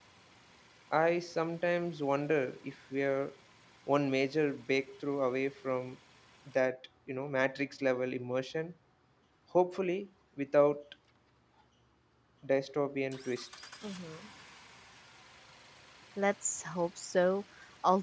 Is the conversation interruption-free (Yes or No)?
Yes